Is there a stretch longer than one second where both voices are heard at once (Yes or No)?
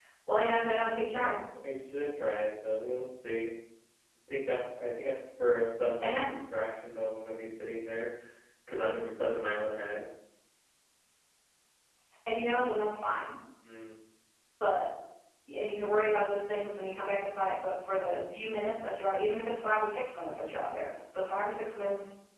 No